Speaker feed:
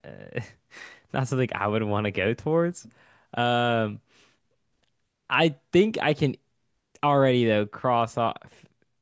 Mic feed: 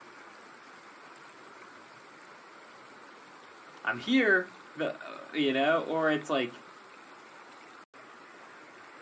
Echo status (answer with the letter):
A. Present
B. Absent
B